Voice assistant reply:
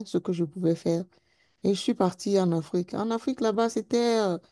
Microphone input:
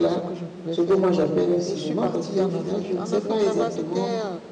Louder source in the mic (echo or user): user